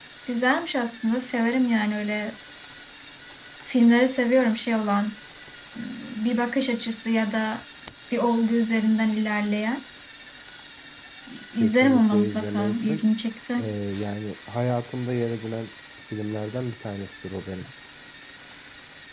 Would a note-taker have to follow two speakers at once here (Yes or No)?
Yes